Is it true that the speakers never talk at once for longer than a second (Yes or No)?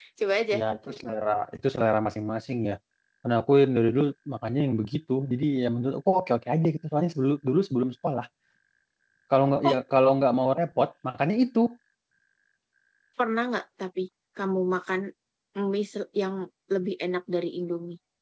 Yes